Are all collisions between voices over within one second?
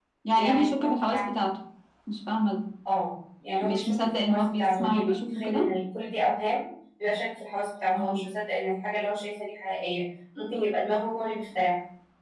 No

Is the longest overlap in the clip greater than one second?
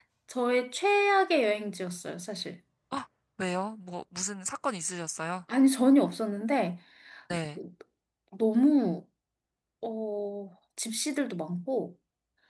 No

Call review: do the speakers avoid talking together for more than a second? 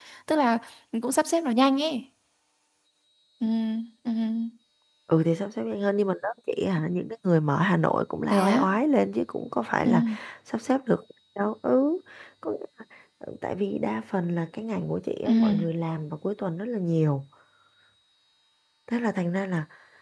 Yes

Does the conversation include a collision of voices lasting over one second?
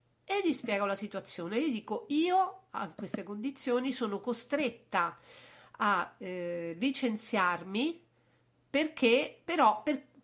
No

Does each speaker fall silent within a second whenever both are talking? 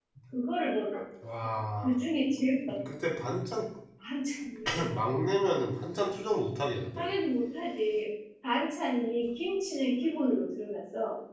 Yes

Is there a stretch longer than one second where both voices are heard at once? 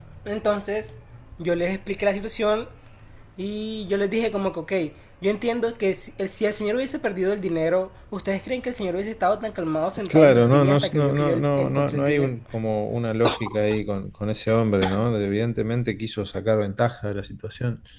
Yes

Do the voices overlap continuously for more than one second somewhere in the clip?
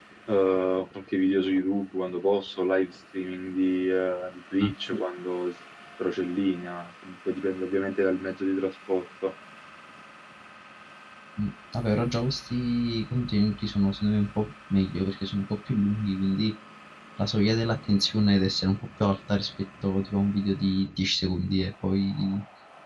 No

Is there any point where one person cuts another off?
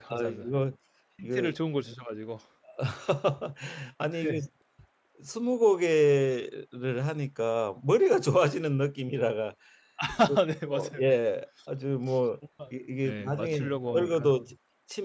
Yes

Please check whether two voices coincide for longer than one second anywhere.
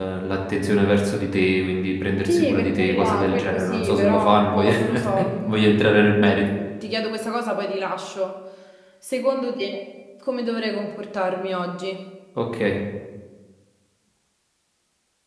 Yes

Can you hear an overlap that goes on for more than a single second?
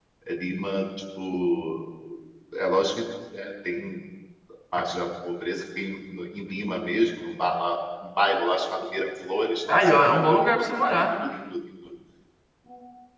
Yes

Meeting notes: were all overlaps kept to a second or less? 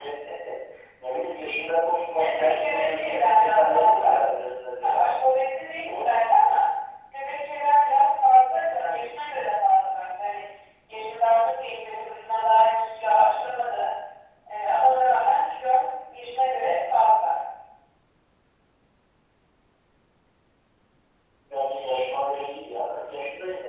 No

